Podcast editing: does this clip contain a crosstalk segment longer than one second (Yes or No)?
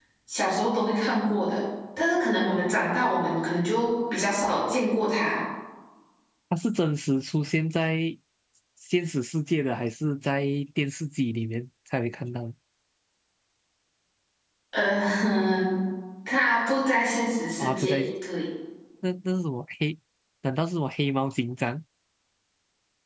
No